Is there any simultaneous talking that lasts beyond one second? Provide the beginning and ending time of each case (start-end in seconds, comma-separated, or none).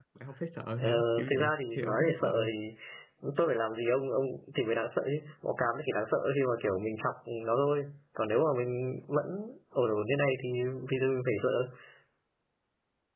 0.8-2.5